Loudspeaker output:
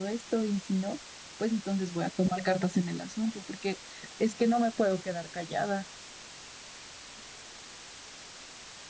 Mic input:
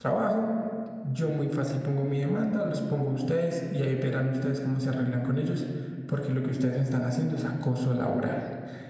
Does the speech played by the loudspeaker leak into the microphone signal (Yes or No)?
No